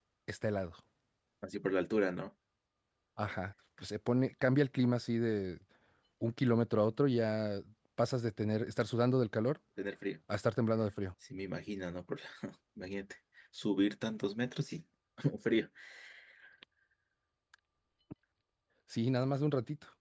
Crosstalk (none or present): none